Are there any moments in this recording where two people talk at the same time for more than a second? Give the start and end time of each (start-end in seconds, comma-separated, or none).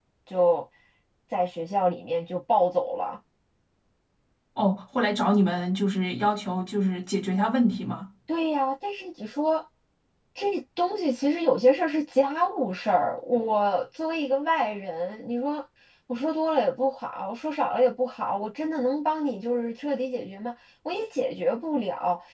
none